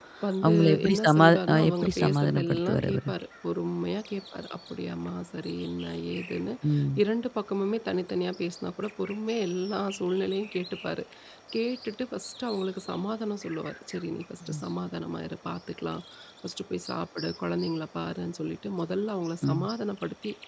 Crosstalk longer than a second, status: present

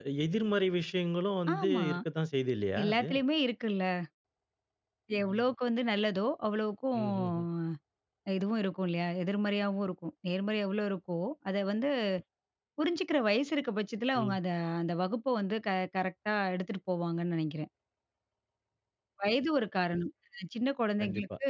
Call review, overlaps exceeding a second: none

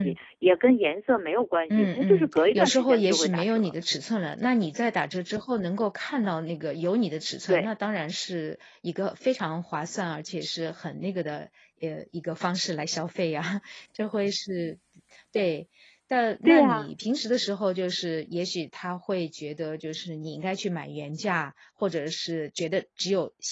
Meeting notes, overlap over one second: present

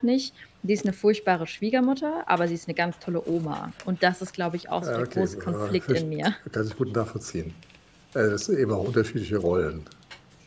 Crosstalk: present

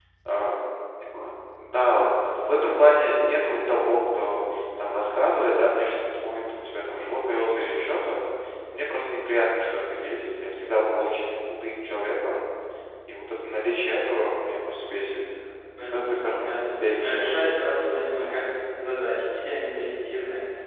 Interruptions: present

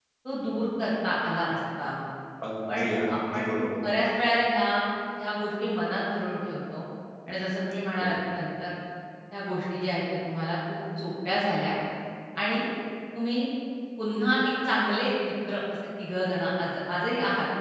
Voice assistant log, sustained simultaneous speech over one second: present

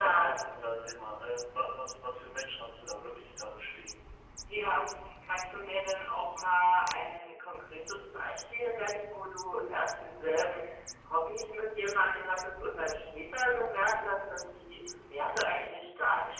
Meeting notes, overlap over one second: none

